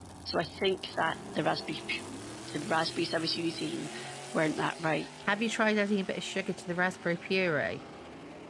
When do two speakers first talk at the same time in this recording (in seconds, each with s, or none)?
none